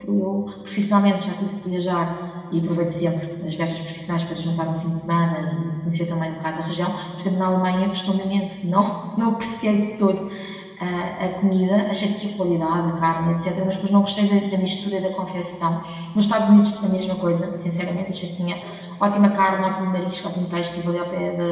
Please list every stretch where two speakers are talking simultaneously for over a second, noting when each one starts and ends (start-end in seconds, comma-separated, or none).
none